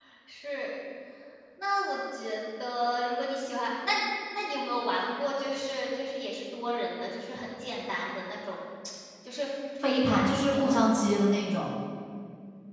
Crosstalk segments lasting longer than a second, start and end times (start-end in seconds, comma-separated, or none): 9.8-11.0